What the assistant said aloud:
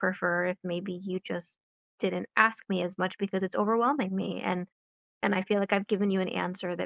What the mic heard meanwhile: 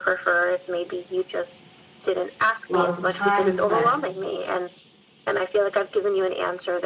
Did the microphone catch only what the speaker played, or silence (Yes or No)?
No